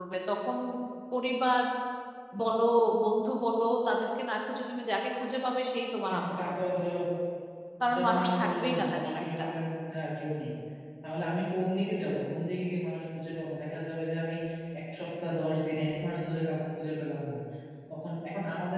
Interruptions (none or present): present